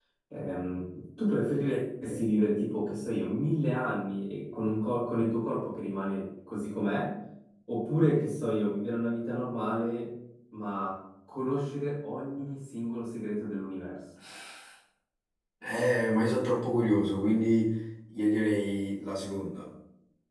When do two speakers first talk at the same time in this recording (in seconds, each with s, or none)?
none